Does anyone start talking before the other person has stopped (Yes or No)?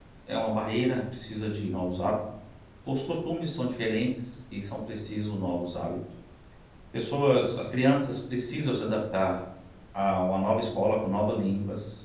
No